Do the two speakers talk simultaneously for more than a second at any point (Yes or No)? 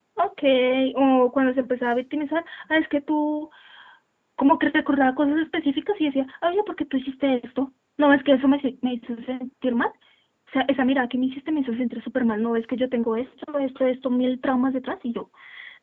No